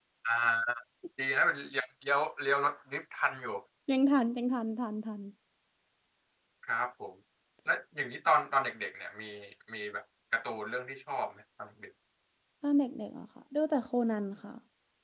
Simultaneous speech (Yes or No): No